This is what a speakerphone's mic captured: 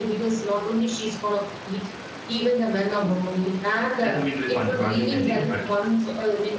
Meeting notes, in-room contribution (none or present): present